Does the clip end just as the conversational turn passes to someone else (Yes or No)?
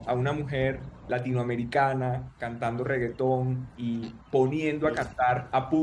No